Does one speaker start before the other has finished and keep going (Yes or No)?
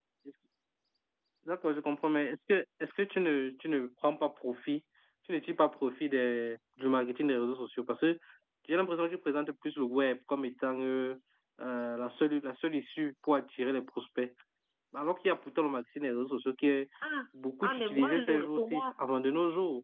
Yes